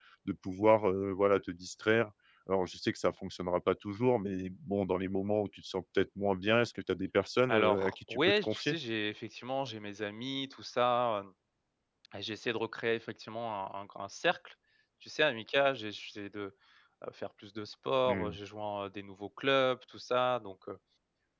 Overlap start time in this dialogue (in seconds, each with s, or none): 7.5 s